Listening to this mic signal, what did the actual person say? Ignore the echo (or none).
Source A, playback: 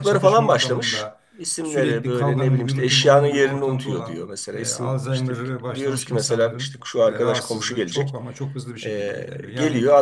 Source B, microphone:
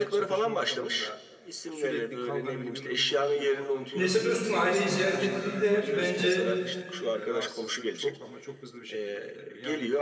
Neyse dostum aileyi ziyaret ettiğinde bence